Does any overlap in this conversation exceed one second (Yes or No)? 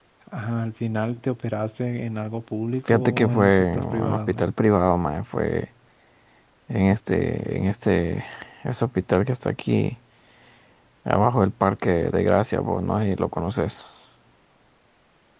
Yes